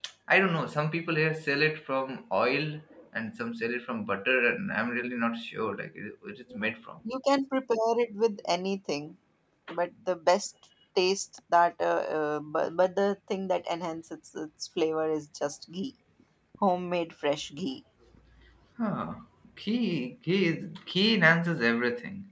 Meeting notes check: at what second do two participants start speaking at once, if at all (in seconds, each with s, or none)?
none